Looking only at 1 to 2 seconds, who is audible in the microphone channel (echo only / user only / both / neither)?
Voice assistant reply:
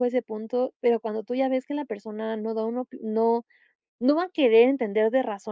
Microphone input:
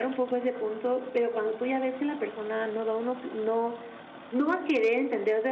echo only